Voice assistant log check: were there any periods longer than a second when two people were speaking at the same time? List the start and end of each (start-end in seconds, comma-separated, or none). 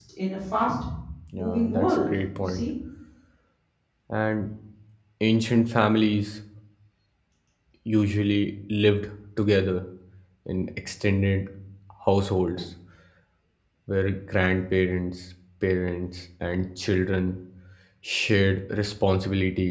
1.3-2.6